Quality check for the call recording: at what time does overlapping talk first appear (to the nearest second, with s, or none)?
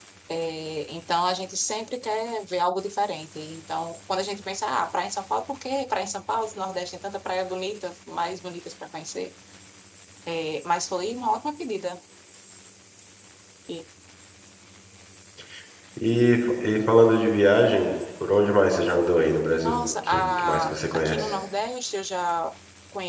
20 s